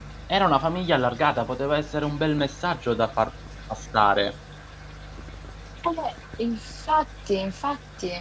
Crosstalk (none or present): none